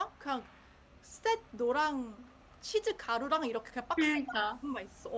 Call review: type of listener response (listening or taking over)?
listening